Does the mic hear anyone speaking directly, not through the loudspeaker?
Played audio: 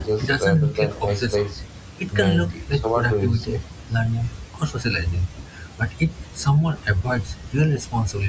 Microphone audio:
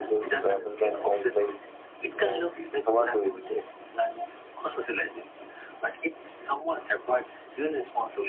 No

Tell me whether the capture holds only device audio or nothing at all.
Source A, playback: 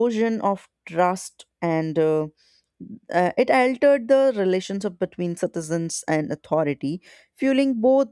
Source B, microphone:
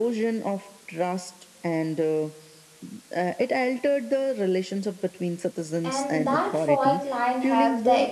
No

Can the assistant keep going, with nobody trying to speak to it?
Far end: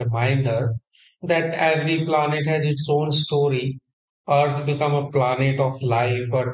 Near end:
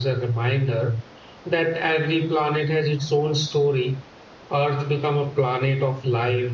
Yes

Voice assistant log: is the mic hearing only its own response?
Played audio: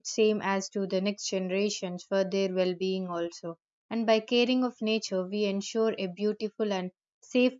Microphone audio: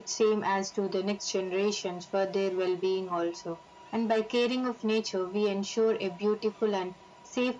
Yes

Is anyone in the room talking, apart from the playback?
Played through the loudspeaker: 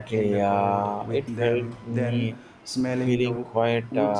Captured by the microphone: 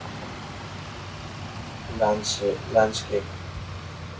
Yes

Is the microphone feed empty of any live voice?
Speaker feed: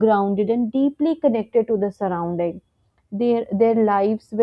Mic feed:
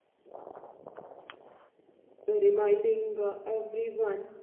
No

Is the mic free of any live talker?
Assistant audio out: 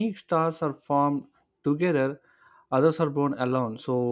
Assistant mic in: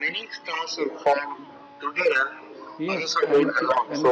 No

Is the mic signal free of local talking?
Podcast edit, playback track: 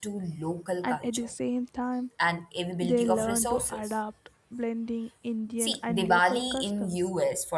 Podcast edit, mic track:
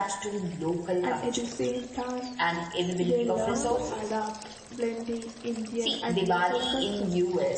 No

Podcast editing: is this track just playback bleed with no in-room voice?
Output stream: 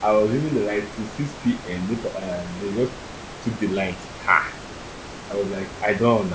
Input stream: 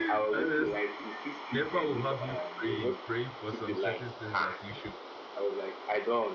No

